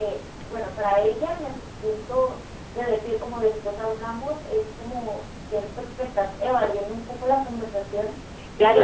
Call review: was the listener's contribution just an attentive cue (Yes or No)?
No